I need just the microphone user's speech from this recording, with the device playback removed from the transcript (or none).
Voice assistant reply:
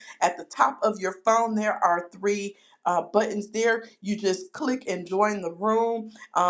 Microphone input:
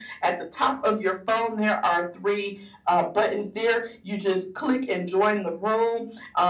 none